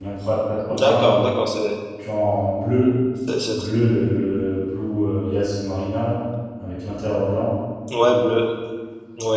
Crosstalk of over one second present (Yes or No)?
No